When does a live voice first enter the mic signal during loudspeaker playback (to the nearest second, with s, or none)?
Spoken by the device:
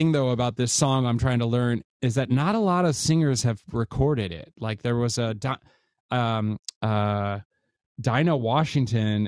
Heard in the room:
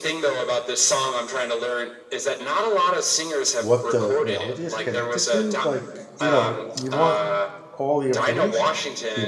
4 s